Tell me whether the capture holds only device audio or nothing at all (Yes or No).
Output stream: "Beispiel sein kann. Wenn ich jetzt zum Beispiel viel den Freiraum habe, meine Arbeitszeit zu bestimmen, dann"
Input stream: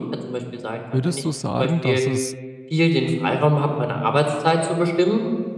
No